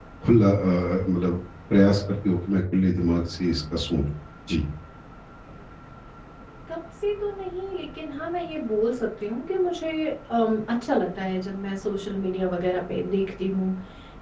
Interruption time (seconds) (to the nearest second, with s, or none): none